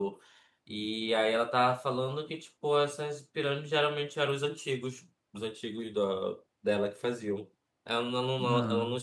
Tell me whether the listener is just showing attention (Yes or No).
Yes